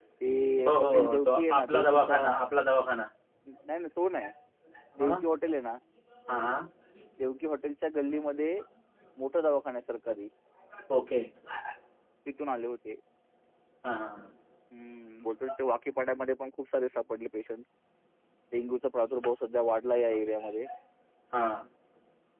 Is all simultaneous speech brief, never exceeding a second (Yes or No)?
No